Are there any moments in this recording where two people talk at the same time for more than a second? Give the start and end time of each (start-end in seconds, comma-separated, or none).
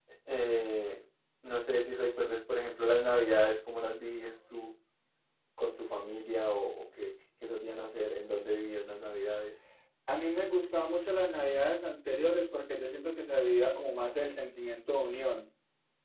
none